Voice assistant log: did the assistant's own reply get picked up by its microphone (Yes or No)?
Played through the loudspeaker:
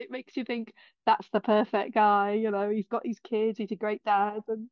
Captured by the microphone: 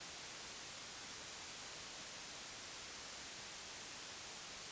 No